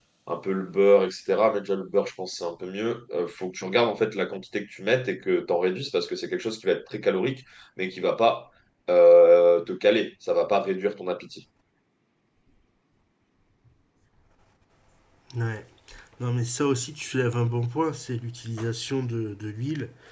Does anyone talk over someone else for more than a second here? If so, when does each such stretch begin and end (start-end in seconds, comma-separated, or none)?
none